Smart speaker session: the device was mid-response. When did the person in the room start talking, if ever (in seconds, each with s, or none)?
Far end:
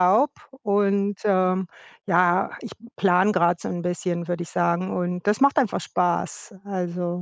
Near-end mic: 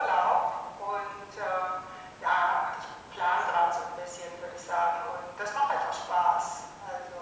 none